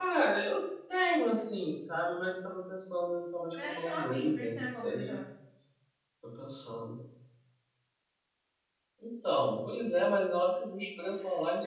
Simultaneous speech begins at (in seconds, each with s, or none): 3.6 s